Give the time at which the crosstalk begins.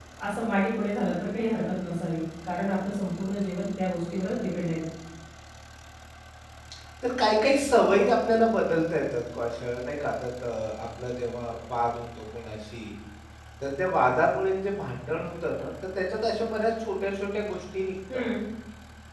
none

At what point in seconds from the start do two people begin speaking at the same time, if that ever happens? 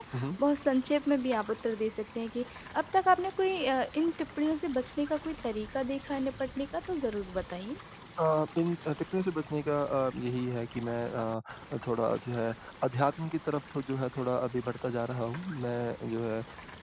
none

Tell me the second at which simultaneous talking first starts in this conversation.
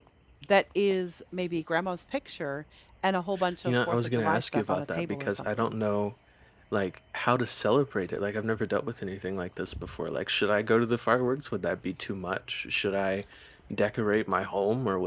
4 s

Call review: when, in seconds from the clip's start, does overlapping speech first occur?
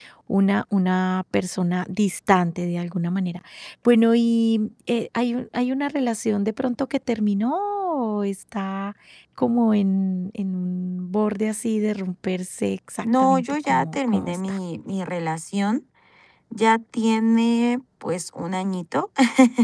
13 s

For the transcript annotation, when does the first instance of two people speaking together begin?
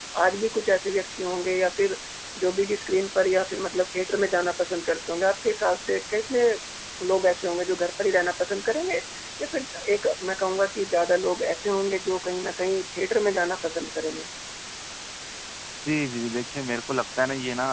none

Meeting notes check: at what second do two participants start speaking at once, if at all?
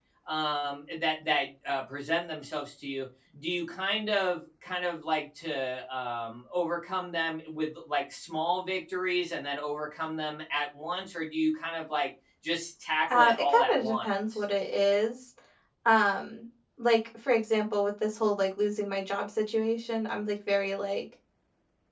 13 s

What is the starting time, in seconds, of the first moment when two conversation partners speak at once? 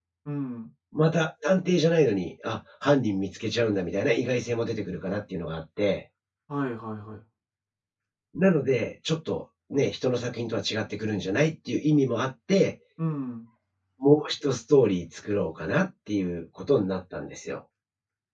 none

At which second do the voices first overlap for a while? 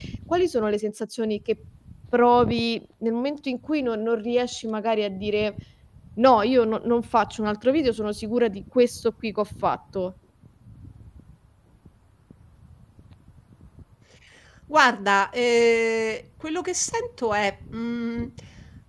none

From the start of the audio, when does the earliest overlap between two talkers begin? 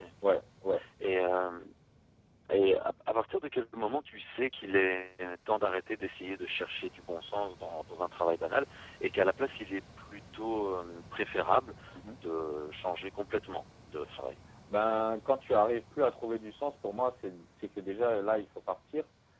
none

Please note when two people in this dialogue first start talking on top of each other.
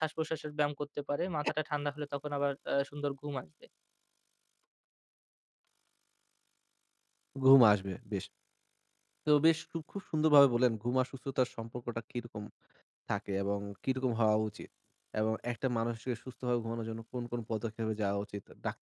none

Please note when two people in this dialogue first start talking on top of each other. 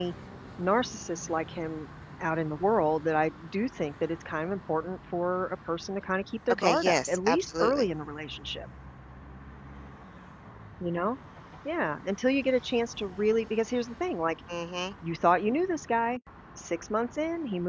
7 s

